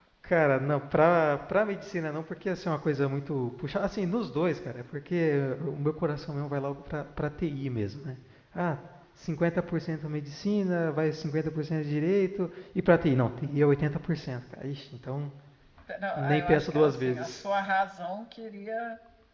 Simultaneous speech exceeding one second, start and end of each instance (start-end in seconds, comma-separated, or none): 16.2-17.4